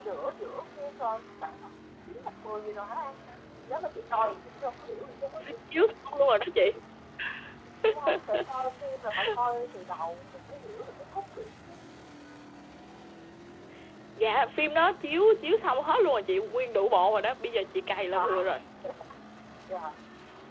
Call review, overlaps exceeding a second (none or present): none